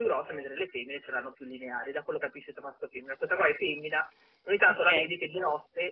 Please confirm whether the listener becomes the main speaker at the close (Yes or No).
No